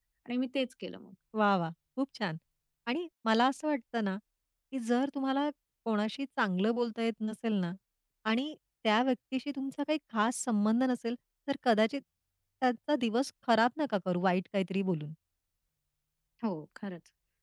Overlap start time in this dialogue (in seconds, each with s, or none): none